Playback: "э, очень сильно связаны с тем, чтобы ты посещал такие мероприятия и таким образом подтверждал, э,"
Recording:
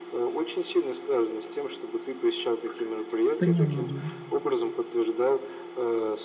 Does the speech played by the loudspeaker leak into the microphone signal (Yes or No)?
Yes